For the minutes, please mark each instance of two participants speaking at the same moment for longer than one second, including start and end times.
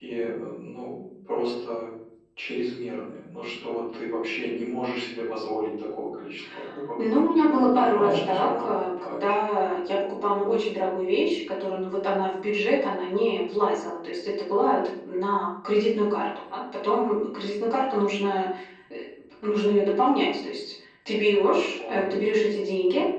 7.1-9.3

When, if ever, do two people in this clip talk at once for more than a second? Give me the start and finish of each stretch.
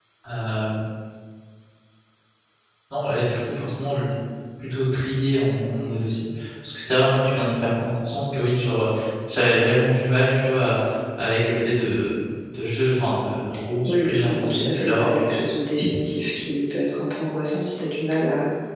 13.8-15.1

